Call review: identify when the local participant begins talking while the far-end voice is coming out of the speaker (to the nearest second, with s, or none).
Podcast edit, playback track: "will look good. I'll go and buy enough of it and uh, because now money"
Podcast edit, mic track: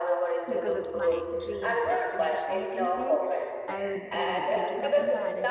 0 s